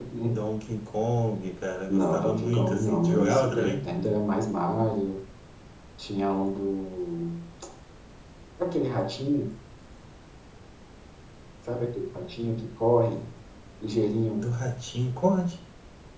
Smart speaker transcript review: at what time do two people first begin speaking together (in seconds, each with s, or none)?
1.9 s